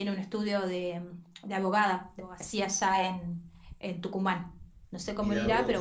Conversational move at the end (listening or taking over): listening